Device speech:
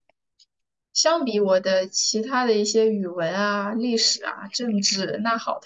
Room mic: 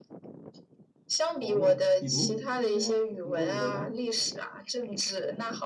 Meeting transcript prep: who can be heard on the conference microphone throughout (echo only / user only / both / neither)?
both